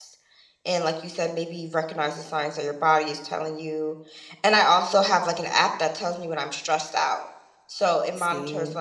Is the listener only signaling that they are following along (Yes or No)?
Yes